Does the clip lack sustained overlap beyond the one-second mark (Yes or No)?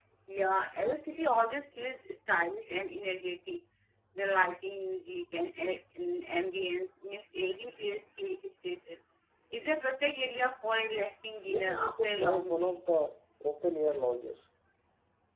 No